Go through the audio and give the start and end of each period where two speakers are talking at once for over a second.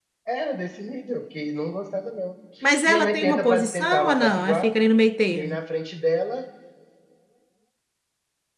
2.9-4.7

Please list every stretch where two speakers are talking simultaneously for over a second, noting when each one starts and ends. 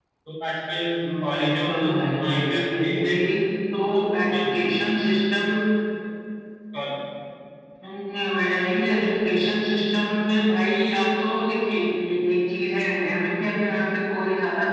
1.3-3.1

